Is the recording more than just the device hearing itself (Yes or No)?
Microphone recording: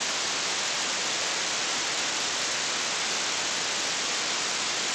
No